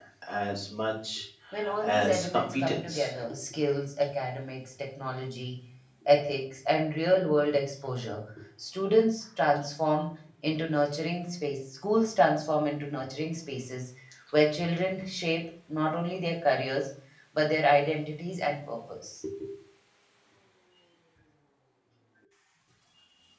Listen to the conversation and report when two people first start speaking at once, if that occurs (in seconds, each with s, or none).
1.8 s